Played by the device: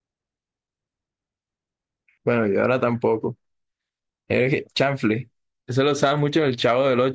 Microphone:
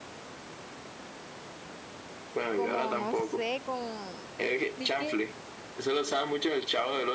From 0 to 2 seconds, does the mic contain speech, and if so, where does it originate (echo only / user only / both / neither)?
neither